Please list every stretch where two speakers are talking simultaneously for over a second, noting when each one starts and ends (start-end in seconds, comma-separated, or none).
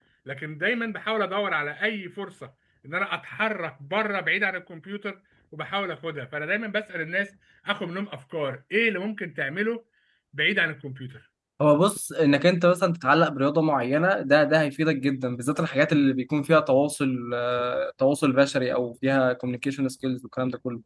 none